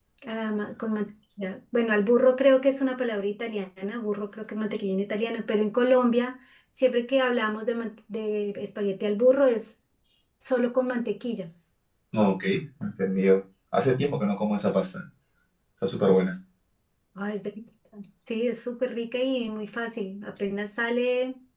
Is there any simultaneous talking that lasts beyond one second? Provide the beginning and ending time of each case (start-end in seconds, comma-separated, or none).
none